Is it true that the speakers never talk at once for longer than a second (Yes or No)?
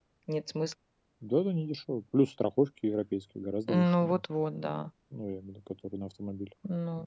Yes